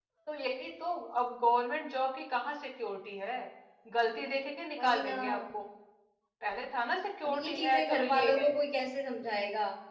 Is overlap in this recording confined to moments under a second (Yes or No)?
No